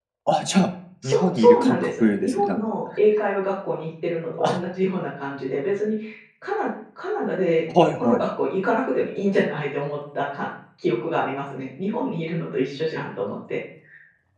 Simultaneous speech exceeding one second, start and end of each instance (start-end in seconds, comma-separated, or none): 1.0-2.6